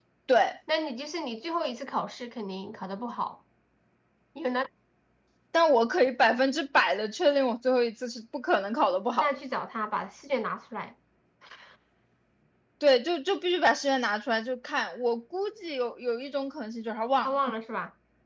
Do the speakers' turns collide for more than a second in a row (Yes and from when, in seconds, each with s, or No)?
No